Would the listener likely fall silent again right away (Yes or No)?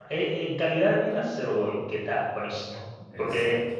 Yes